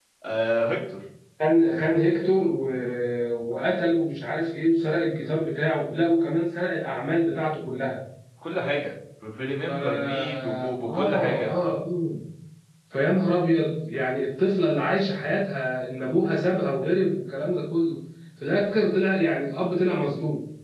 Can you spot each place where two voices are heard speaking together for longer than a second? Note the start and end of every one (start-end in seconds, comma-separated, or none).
9.7-11.5